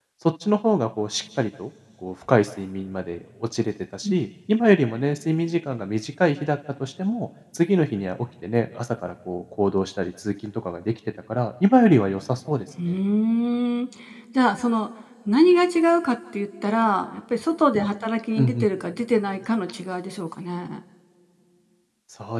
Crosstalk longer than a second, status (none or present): none